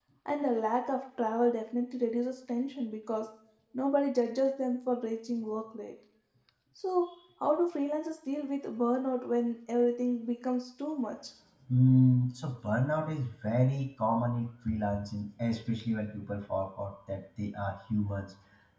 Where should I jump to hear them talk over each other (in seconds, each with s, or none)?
none